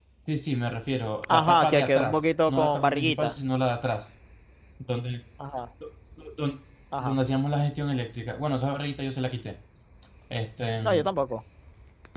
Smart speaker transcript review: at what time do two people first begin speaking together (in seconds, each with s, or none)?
1.3 s